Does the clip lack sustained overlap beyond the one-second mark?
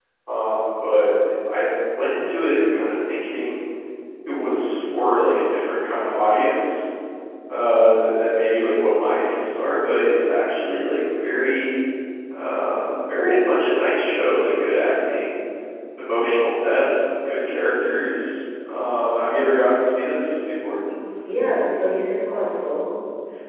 Yes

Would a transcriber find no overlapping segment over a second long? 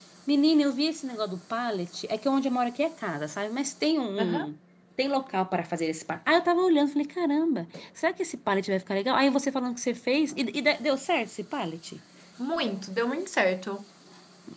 Yes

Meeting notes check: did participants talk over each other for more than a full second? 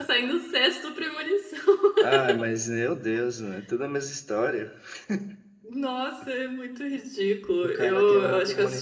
Yes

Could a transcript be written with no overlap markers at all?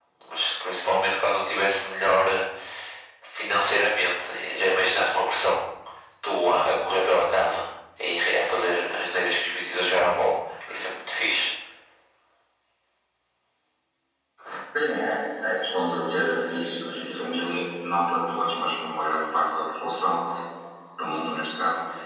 Yes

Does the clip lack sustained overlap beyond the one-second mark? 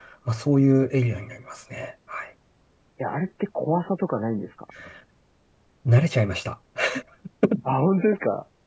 Yes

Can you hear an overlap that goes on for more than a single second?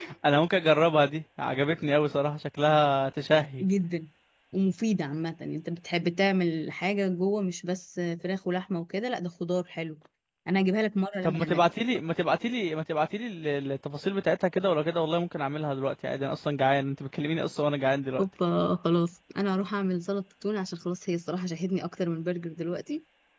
No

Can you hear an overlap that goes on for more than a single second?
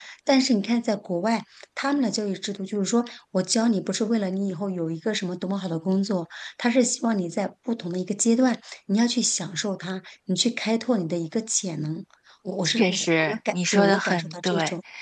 Yes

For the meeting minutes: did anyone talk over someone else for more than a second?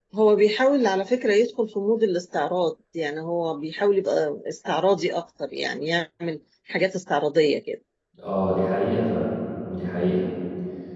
No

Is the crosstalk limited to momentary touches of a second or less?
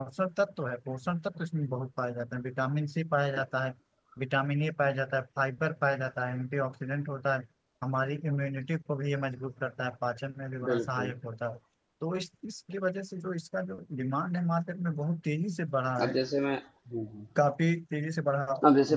Yes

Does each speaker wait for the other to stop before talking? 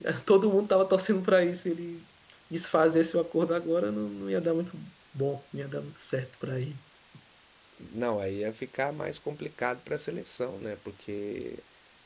Yes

